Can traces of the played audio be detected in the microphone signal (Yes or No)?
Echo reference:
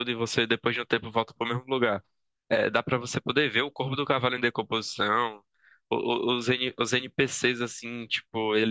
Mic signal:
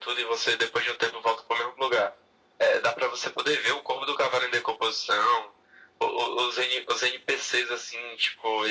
Yes